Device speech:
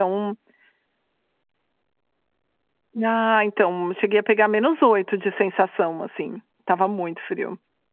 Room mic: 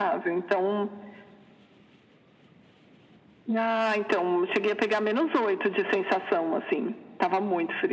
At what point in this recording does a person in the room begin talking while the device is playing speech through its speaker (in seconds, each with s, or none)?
none